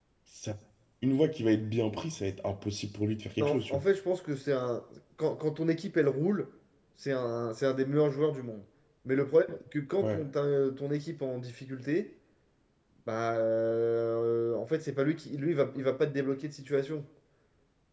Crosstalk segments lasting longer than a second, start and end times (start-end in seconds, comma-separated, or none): none